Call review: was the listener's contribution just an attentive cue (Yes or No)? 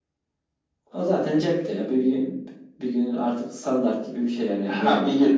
No